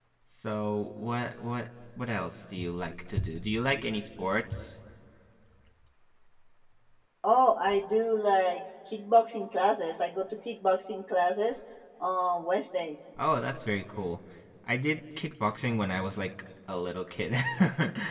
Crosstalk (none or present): none